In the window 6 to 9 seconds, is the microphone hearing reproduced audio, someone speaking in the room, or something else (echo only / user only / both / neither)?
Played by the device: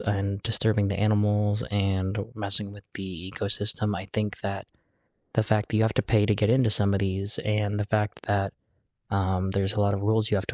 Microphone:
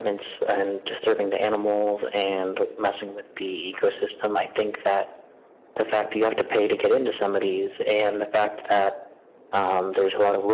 echo only